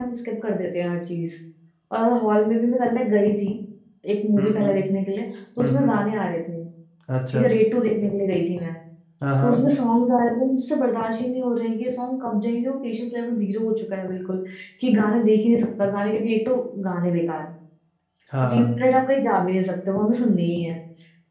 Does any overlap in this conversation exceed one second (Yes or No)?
No